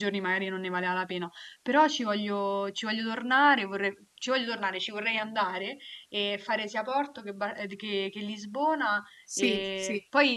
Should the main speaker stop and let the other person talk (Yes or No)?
No